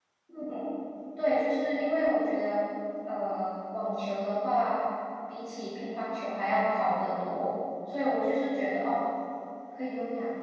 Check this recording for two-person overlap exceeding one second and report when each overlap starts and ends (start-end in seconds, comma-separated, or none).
none